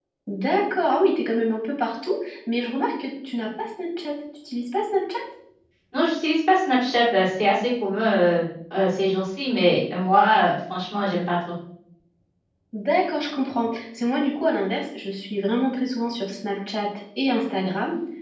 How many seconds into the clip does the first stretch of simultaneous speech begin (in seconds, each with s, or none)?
none